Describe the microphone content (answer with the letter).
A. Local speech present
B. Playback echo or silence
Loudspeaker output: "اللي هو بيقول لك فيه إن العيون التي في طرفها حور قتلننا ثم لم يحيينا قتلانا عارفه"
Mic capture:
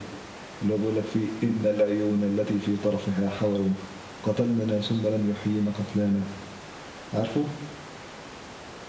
B